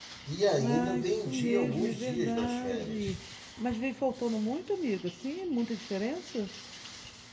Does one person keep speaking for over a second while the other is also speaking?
Yes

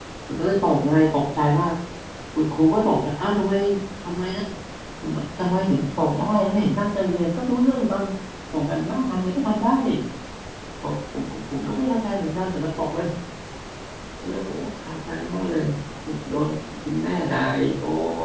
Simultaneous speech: No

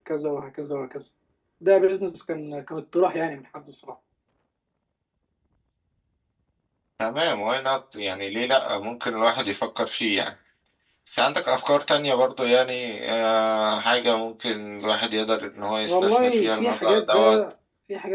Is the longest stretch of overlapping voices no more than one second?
No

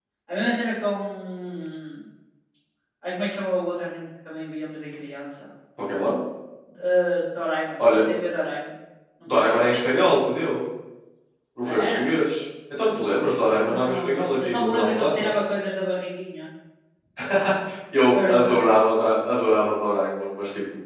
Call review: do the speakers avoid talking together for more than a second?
No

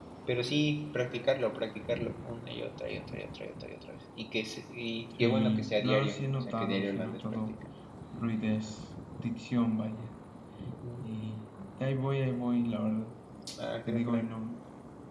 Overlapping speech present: Yes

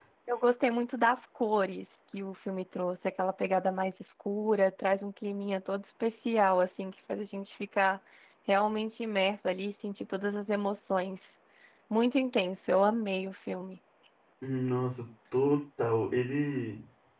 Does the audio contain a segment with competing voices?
No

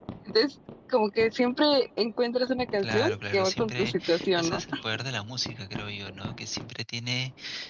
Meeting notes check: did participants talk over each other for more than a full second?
Yes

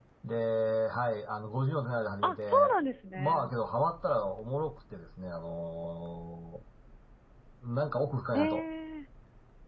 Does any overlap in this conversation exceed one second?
No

